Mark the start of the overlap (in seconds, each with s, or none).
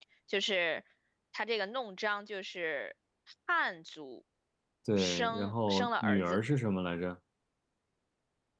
5.0 s